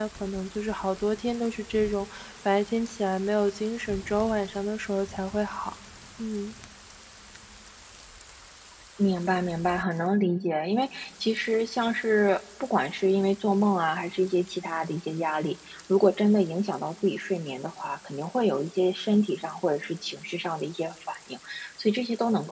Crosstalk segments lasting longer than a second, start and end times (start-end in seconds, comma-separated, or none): none